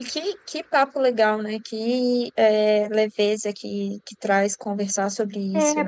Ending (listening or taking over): taking over